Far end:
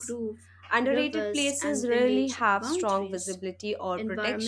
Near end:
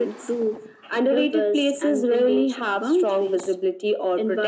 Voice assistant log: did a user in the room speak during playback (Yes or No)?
No